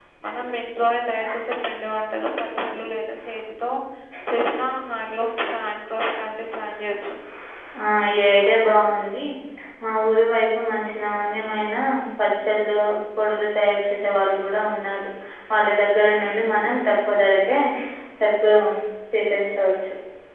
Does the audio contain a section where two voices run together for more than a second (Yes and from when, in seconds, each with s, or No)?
No